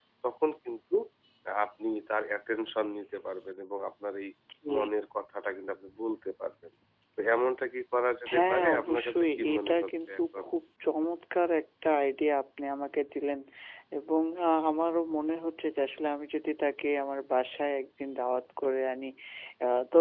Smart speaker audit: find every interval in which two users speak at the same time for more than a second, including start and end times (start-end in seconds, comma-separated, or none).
8.3-10.4